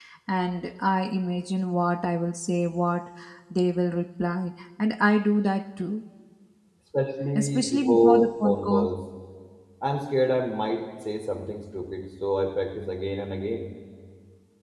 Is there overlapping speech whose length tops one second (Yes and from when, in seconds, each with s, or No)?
Yes, from 7.4 s